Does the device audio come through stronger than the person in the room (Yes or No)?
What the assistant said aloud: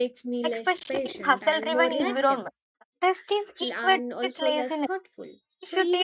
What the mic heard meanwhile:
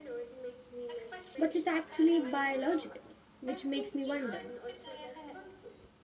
No